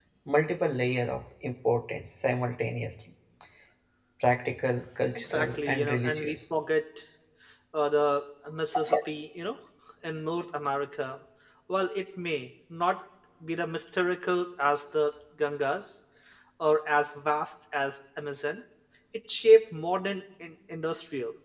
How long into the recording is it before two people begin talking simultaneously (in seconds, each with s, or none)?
5.2 s